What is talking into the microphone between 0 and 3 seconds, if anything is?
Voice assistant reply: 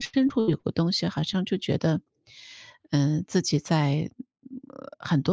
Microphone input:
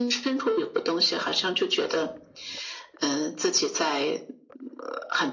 echo only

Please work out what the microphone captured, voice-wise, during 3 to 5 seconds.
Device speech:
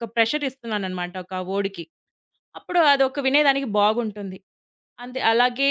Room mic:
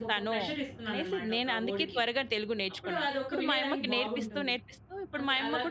both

